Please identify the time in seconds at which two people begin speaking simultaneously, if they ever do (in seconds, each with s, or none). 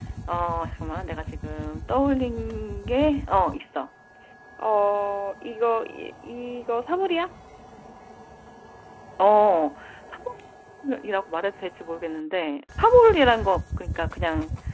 none